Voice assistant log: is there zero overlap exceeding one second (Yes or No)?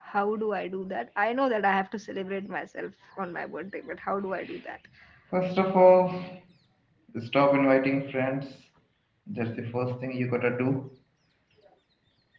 Yes